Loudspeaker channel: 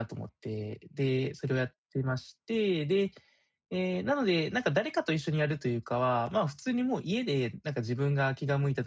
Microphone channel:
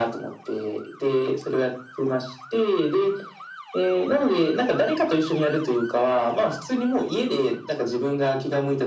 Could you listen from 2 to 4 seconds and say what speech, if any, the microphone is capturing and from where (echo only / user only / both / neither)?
echo only